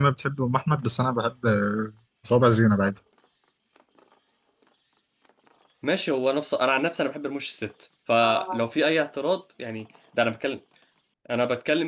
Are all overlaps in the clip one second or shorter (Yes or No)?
Yes